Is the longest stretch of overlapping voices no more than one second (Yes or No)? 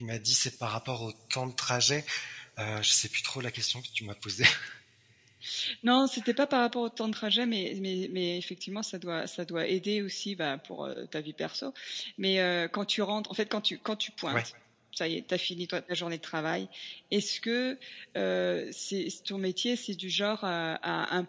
Yes